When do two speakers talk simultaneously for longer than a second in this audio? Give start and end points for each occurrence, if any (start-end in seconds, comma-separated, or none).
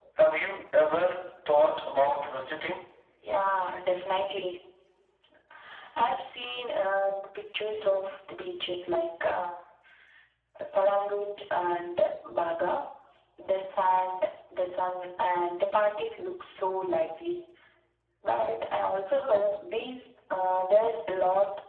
none